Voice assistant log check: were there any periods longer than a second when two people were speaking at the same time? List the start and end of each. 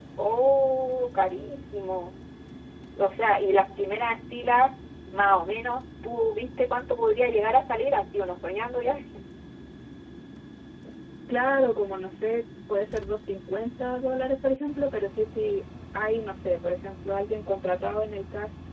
none

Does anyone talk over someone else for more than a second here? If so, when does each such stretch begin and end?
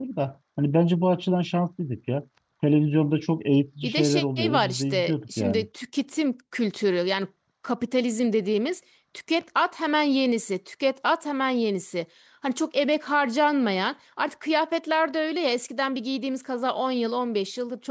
3.8-5.6

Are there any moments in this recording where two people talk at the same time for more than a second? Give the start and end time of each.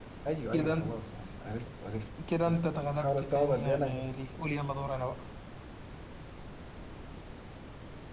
2.4-4.1

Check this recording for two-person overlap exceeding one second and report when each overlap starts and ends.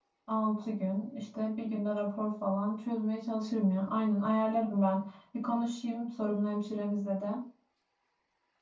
none

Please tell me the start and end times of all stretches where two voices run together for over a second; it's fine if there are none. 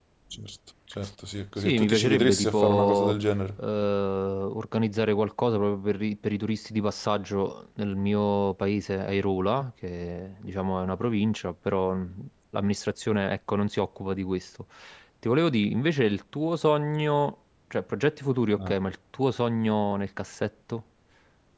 1.6-3.1

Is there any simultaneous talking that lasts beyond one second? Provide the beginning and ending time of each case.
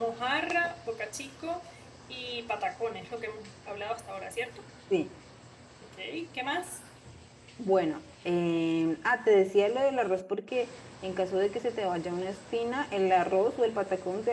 none

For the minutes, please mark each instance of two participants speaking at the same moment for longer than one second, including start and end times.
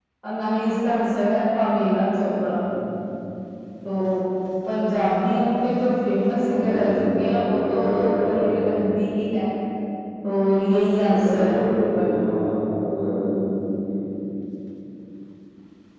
6.4-8.7, 11.0-12.2

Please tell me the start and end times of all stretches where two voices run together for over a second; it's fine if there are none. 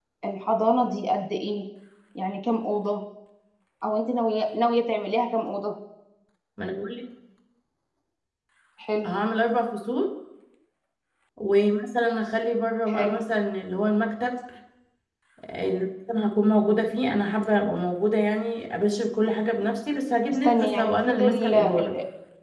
20.4-21.9

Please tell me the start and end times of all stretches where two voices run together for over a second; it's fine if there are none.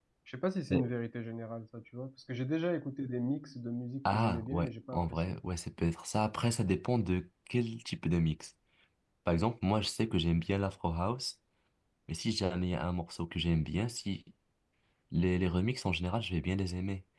4.0-5.3

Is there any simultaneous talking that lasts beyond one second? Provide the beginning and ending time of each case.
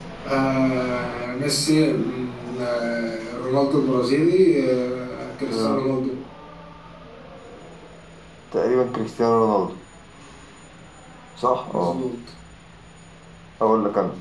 none

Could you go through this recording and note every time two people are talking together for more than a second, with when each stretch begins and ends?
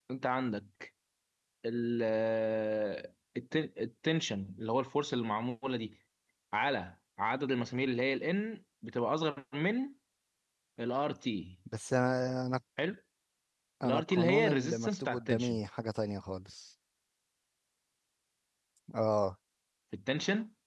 13.8-15.6

